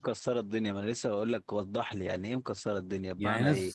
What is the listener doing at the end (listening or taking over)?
taking over